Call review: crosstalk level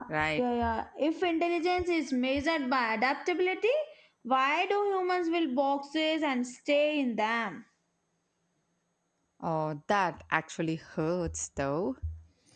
none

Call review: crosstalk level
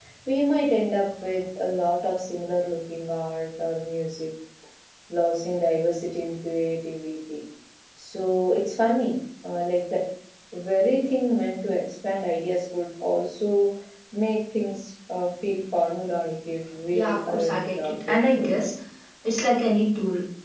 present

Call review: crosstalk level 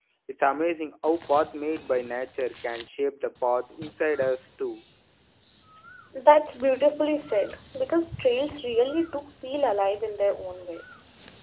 none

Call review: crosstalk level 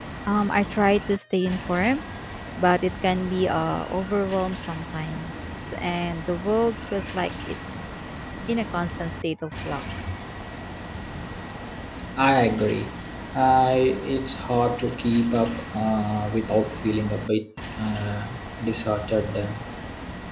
none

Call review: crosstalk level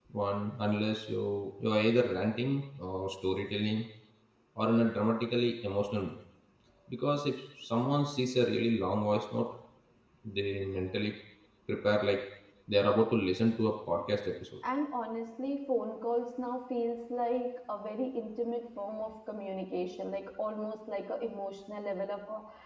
none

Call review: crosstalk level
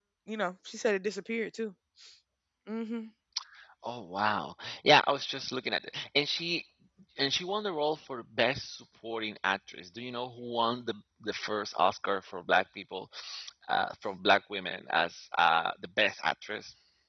none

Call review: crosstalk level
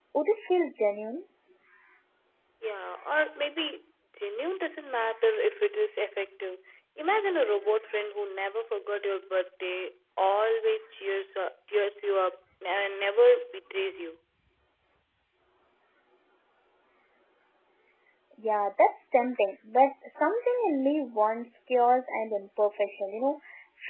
none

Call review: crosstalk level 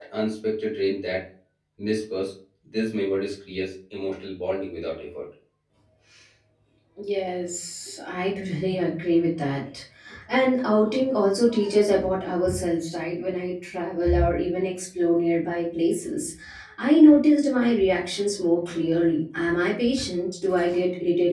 none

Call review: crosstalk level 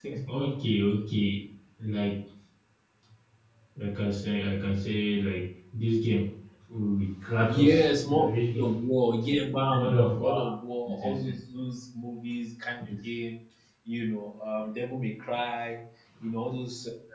present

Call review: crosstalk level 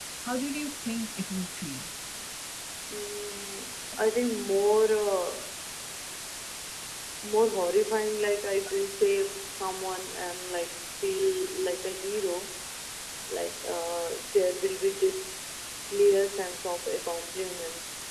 none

